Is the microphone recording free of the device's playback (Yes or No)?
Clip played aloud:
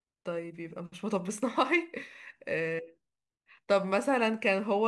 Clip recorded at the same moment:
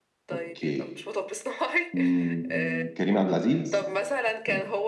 No